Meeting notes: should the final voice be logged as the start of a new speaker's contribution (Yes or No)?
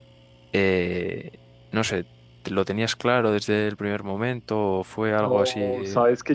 Yes